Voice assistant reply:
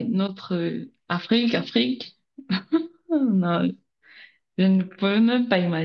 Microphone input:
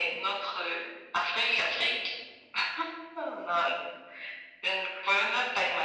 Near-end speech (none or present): none